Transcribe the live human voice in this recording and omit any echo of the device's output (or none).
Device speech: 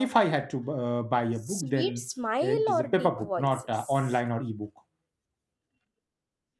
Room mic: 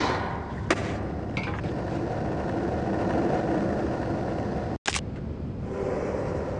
none